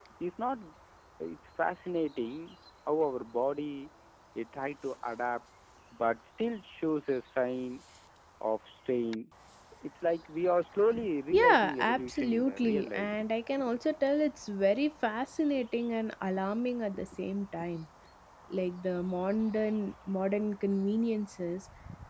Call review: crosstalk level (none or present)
present